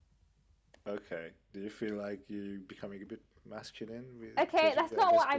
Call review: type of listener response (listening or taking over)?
taking over